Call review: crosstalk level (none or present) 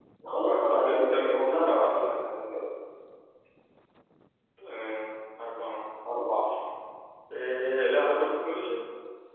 present